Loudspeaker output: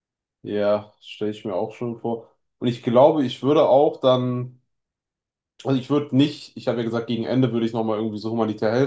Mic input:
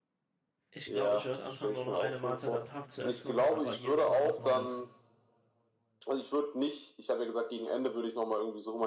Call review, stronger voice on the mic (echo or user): echo